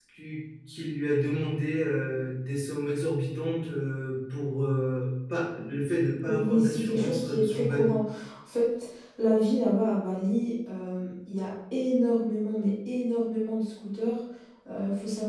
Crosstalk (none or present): present